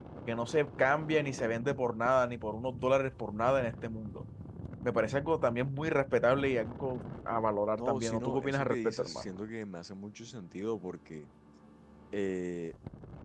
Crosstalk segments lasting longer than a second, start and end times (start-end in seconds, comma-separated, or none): 7.7-9.3